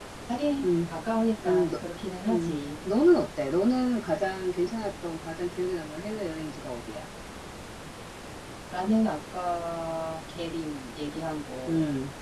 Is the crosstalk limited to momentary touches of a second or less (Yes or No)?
Yes